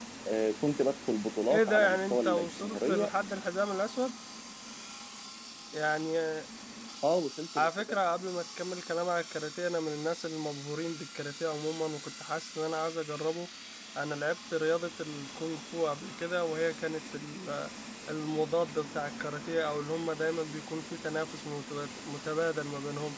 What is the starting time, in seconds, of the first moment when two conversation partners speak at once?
1.5 s

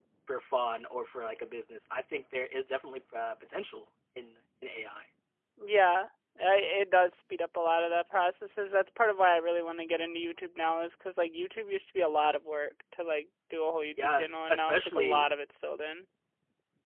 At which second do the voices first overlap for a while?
14.0 s

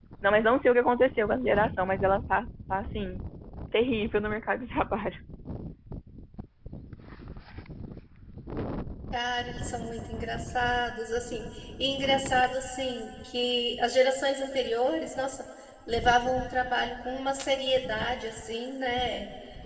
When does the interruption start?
none

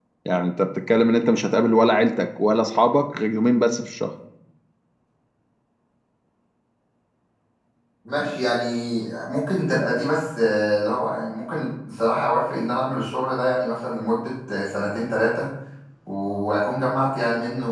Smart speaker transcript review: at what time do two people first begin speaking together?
none

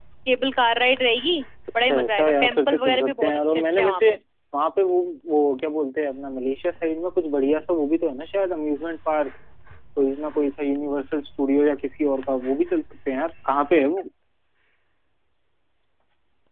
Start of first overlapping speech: 1.8 s

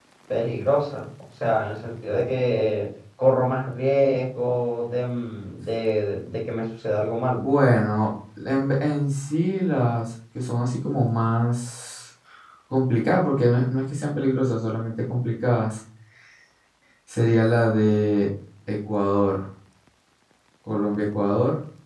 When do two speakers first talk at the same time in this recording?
none

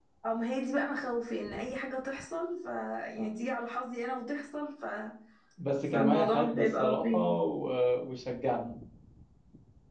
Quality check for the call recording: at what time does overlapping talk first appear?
5.9 s

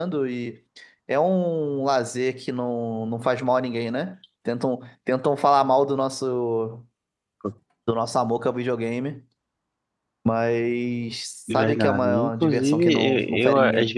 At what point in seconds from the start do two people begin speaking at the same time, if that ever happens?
11.5 s

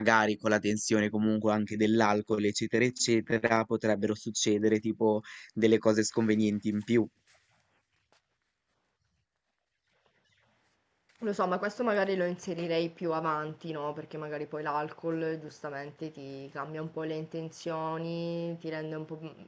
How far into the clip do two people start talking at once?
none

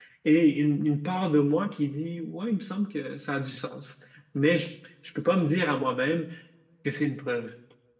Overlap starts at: none

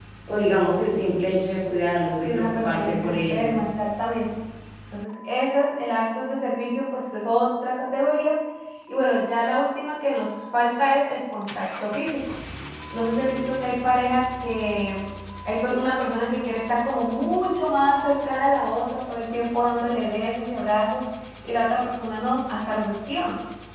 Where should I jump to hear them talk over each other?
2.2 s

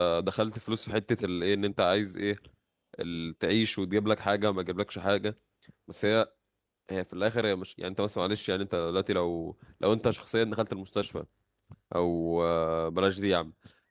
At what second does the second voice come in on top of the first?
none

